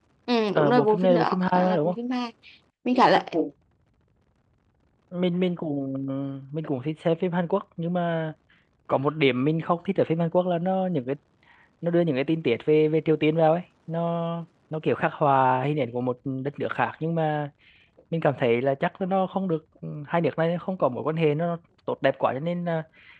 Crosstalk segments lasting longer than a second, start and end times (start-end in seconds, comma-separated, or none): 0.6-1.9